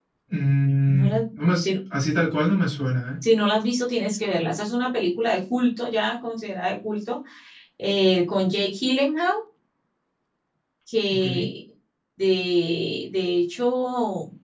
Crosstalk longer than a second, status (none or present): none